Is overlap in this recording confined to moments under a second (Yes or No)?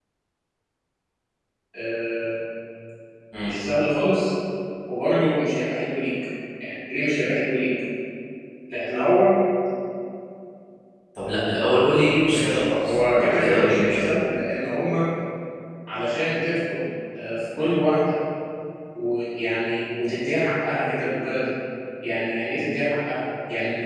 No